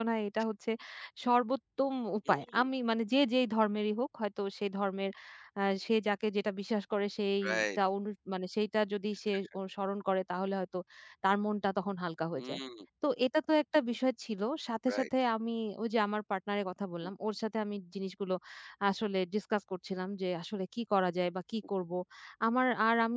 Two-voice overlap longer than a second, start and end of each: none

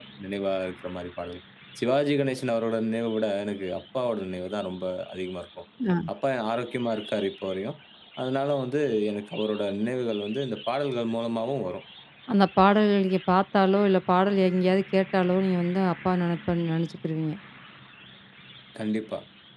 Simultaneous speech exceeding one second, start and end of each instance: none

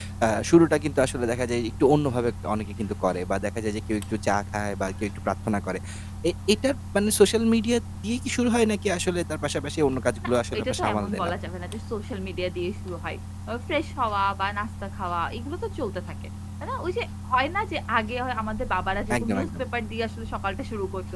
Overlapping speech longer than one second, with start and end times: 10.2-11.5

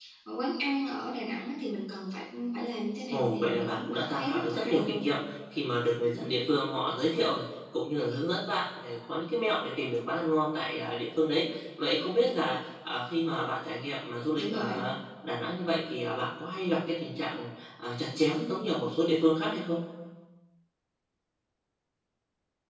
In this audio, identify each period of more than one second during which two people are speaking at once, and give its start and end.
3.1-5.0

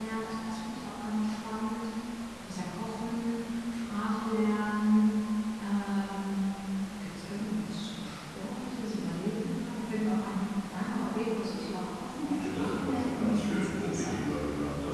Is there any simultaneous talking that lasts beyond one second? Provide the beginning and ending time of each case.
12.3-14.2

